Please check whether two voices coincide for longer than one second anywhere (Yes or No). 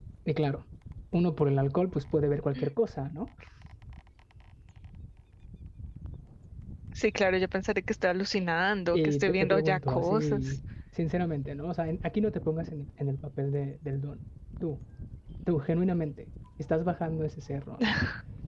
Yes